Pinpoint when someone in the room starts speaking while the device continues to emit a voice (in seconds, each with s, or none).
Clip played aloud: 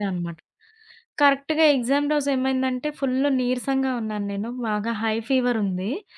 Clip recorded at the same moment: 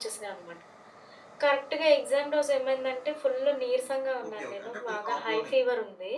4.3 s